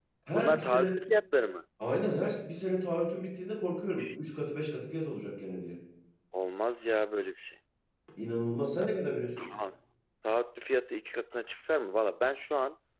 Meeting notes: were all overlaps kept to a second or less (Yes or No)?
Yes